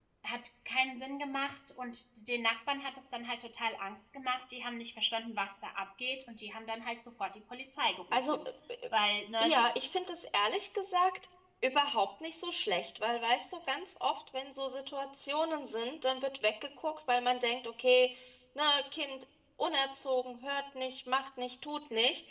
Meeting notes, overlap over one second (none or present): none